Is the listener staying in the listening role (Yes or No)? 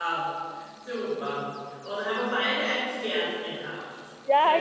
No